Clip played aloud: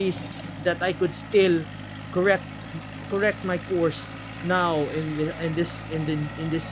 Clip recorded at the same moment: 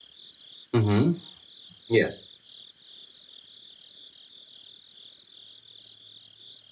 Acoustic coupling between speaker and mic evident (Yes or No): No